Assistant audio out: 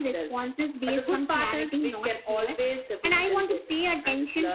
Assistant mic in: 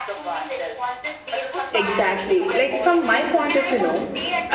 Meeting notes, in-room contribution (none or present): present